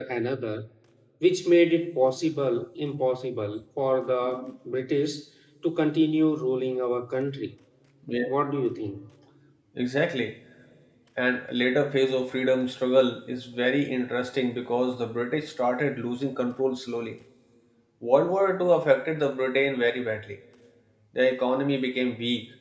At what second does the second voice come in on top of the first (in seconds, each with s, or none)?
none